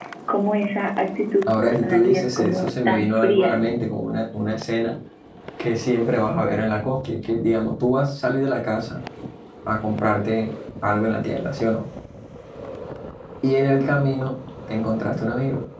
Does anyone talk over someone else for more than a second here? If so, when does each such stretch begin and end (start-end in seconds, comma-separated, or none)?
1.5-3.6